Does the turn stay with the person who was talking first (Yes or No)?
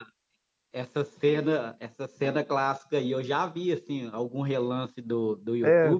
No